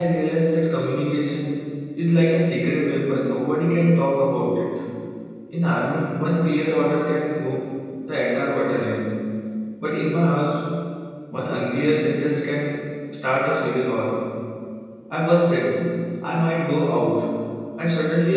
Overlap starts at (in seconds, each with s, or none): none